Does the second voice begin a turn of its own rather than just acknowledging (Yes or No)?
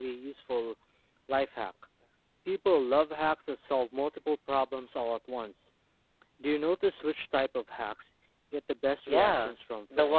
Yes